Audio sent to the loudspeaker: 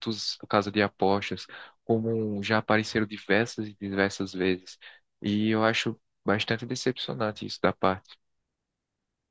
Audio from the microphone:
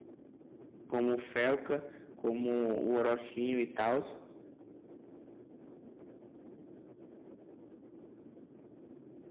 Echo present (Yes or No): No